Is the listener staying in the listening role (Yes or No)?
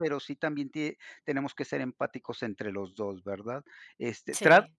Yes